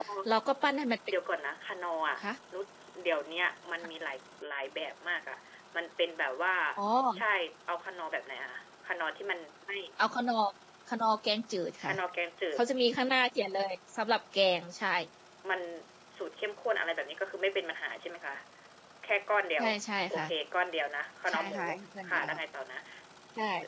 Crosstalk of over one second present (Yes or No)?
No